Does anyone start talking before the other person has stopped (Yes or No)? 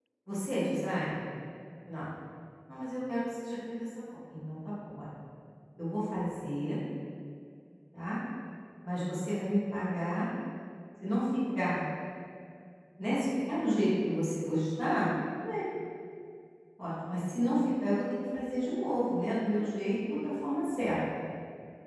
No